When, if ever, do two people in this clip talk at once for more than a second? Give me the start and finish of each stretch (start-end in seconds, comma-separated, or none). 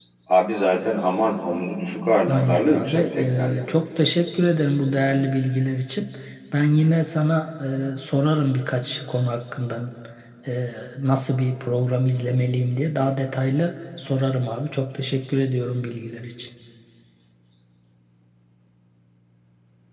2.2-3.6